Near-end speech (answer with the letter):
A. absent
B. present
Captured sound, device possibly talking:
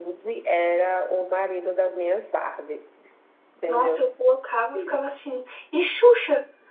B